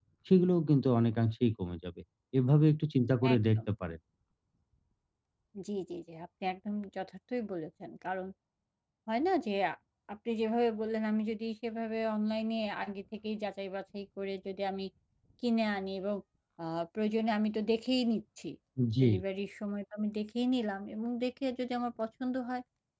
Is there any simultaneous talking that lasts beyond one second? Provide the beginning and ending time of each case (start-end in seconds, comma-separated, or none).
none